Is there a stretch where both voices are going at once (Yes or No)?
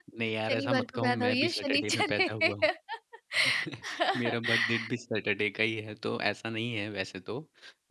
Yes